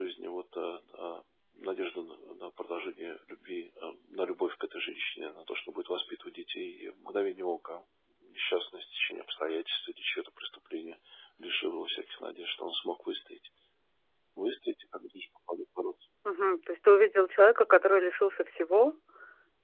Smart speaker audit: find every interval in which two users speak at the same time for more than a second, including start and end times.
none

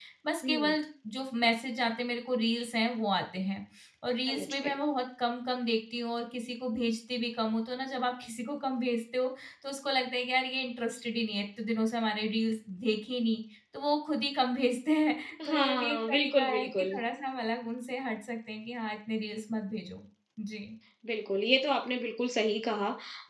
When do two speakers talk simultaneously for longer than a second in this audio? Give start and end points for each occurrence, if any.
15.5-16.9

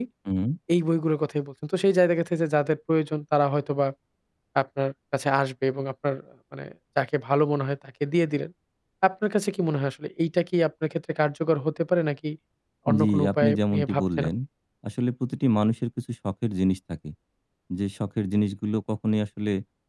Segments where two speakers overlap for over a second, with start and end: 13.0-14.3

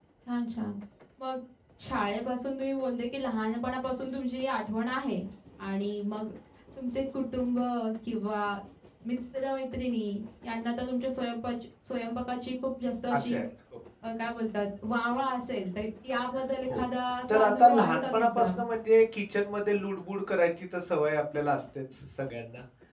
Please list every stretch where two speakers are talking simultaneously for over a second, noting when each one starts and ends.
17.3-18.5

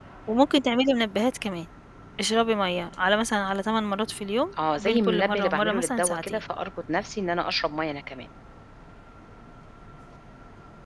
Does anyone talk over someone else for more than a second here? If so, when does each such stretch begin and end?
4.8-6.4

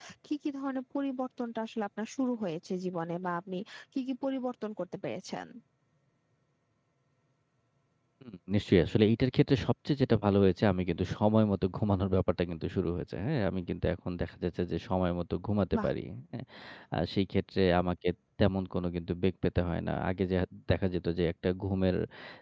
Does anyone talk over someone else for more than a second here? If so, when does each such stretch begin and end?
none

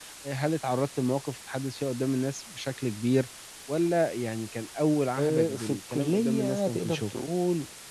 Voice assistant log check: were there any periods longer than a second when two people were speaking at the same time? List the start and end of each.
5.2-7.1

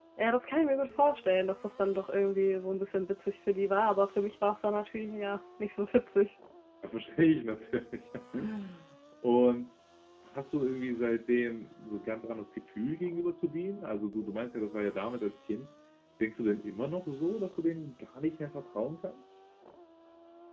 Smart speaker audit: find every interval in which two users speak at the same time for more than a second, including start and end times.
none

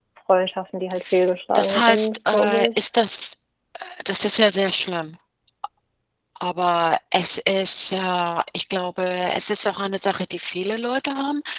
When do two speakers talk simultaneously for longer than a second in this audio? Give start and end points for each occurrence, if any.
1.6-2.8

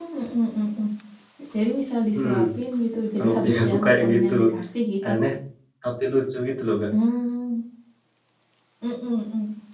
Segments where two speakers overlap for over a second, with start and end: 3.2-4.6

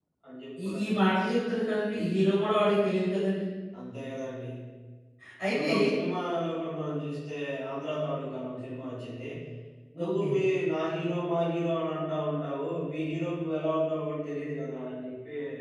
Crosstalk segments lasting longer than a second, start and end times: none

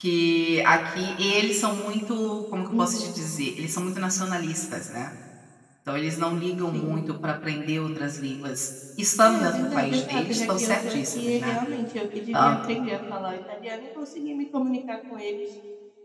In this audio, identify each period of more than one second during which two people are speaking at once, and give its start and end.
9.2-11.6

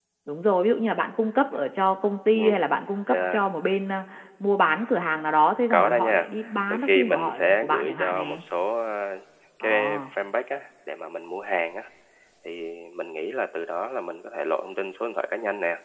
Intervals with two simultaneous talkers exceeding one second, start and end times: 6.7-8.4

